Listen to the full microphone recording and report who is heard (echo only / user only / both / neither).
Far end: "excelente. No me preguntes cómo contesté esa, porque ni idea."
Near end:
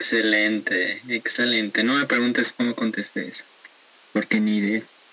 echo only